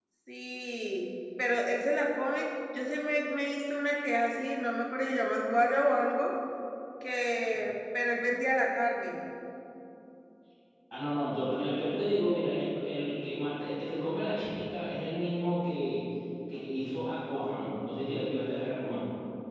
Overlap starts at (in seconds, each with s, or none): none